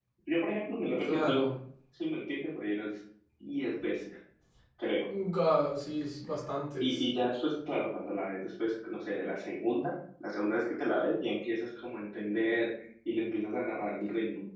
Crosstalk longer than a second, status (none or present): none